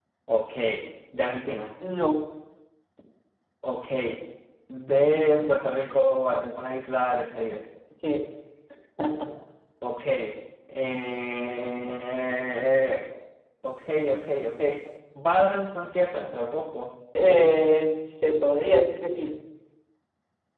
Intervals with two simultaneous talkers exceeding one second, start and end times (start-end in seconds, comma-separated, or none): none